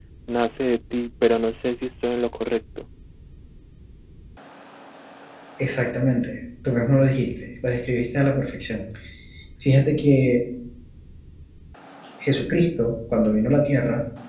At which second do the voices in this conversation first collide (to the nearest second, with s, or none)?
none